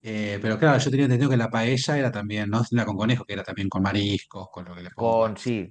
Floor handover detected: Yes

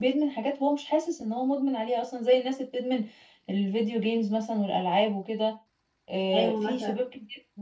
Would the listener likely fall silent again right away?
Yes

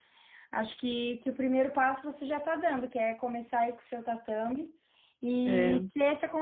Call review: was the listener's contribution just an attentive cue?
Yes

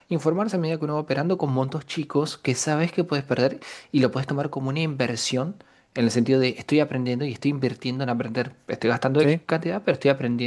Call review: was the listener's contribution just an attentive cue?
Yes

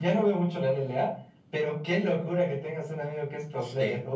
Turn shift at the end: Yes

